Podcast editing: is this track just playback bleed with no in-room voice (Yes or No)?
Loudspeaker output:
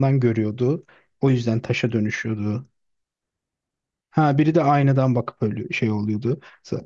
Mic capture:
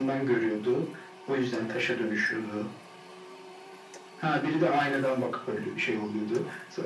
Yes